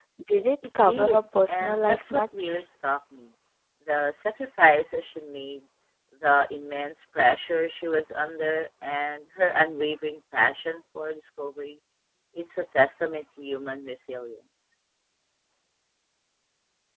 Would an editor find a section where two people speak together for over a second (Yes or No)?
Yes